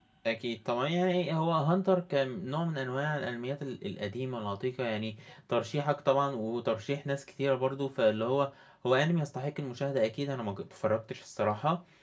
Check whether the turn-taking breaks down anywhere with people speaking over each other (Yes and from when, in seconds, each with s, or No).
No